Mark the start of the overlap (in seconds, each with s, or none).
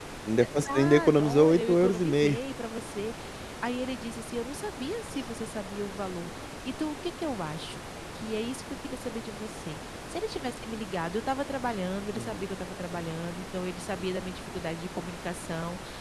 0.6 s